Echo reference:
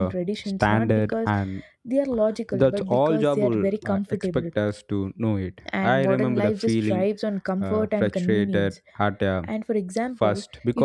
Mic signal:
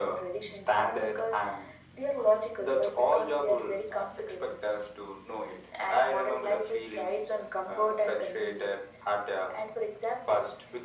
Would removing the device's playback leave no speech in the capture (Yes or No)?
Yes